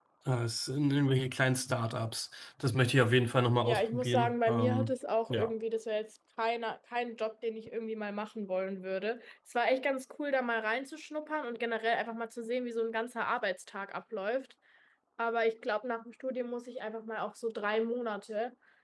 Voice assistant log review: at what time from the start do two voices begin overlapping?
4 s

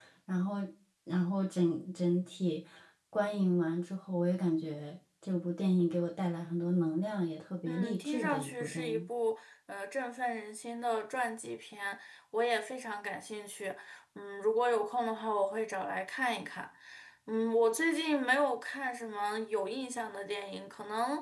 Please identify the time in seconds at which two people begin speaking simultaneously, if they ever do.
8 s

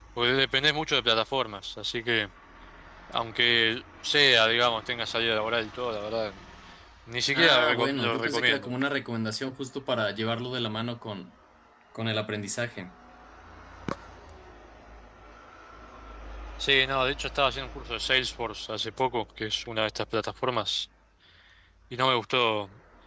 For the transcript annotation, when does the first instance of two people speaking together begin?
7 s

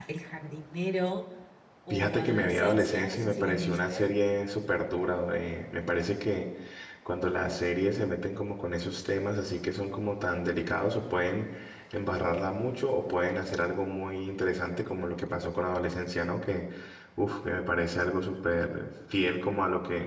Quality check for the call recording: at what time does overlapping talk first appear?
2 s

